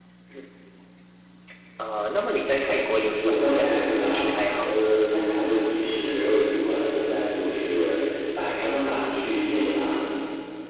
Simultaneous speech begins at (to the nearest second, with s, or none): 3 s